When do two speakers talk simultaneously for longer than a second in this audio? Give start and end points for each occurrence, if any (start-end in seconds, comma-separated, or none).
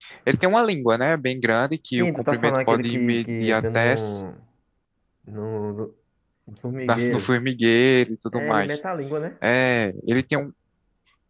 1.9-4.2